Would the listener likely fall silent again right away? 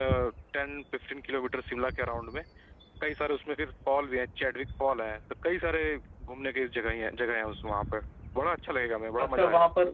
No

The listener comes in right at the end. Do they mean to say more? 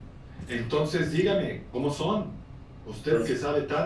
No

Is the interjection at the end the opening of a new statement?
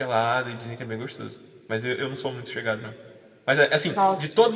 No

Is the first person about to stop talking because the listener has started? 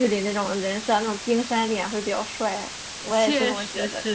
Yes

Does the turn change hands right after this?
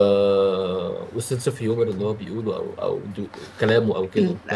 Yes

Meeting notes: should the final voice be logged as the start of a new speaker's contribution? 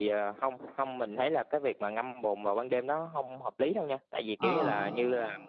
No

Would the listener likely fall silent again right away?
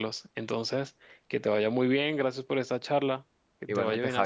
No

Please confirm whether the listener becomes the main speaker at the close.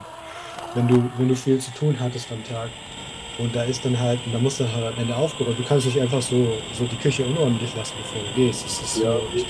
Yes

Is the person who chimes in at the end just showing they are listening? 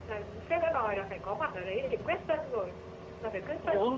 Yes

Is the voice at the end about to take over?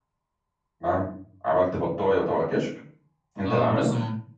Yes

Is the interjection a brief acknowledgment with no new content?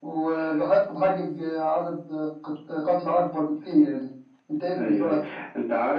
No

